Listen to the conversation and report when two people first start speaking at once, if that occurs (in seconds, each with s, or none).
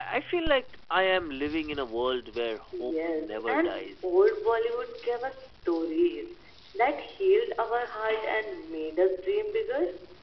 2.8 s